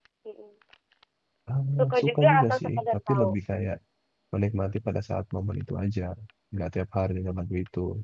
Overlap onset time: 2 s

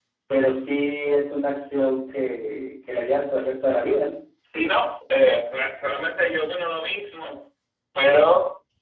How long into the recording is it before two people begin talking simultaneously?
none

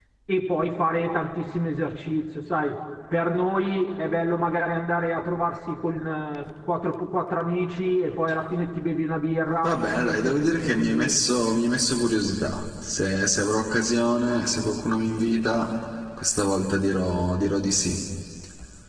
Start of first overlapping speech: 10 s

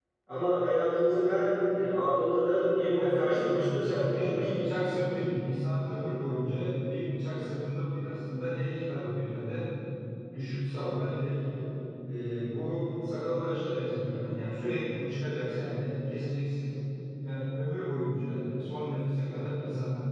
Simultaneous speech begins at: 3 s

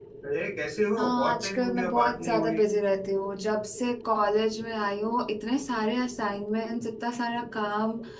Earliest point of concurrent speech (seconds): 1 s

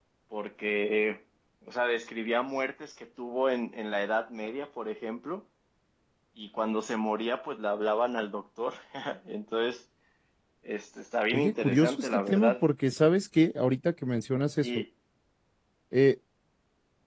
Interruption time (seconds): 11 s

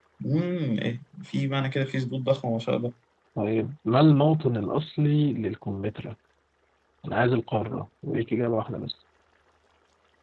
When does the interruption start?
none

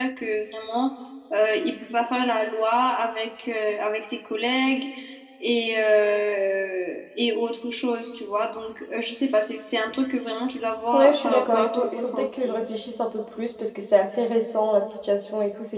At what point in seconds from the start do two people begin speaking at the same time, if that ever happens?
11 s

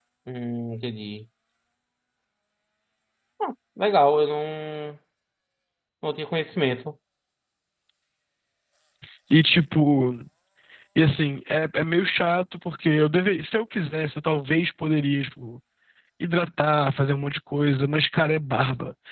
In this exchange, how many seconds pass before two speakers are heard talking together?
none

